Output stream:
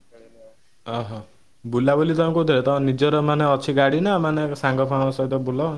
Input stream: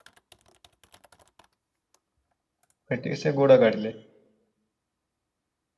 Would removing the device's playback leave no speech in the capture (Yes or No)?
No